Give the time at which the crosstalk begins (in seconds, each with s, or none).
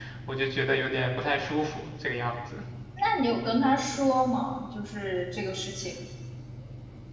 none